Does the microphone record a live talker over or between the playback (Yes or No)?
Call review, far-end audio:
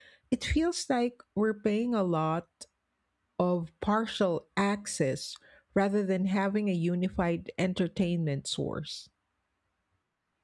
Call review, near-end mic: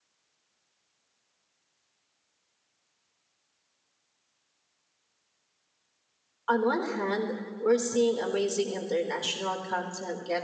Yes